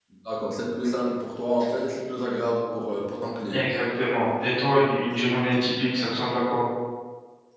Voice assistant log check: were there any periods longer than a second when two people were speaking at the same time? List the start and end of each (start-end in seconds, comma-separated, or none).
none